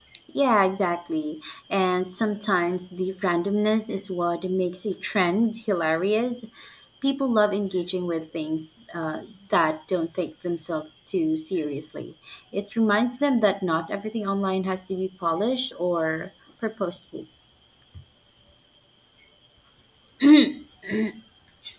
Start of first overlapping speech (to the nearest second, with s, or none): none